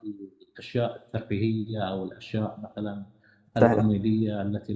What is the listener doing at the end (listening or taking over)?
listening